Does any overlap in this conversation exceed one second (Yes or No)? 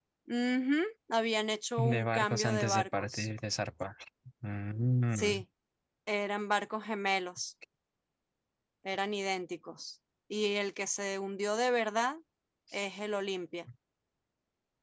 Yes